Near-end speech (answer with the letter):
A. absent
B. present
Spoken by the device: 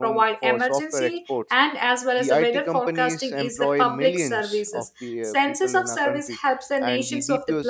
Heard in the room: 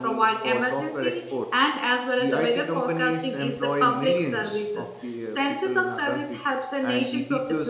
A